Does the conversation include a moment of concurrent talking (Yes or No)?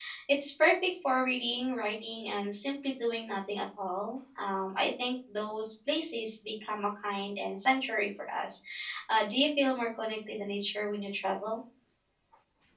No